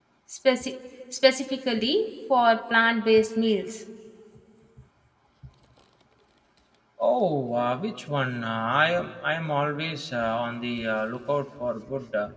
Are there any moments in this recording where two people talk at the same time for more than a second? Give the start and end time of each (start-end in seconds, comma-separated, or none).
none